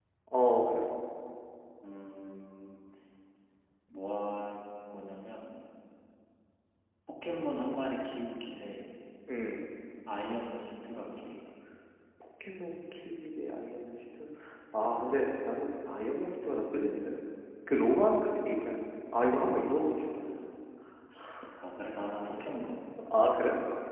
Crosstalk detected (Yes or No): No